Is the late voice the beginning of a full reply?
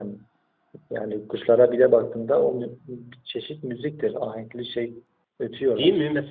Yes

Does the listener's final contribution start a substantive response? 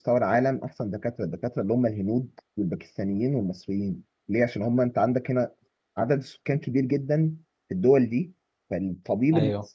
No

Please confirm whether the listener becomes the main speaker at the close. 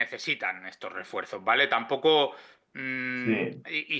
No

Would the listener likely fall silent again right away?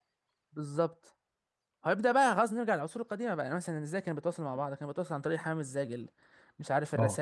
Yes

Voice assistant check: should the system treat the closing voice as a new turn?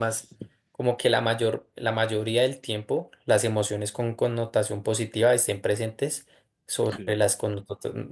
No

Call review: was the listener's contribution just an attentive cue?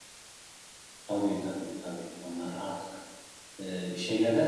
Yes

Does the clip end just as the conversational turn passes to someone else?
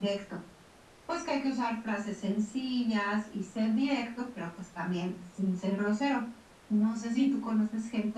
No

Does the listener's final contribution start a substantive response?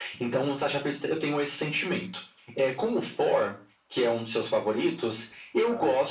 No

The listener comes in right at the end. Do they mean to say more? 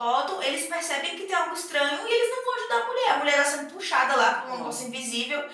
No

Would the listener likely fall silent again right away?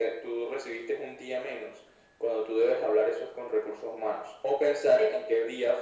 Yes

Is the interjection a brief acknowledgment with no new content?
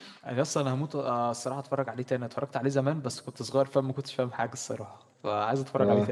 No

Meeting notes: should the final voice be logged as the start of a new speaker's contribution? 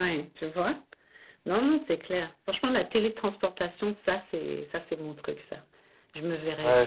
Yes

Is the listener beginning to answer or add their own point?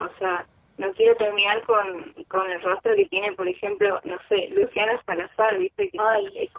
Yes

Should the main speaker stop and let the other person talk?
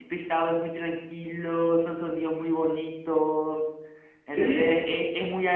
No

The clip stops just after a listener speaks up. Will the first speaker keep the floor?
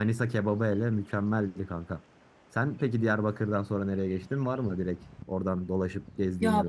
No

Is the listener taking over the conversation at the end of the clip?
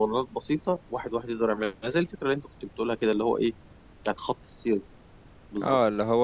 Yes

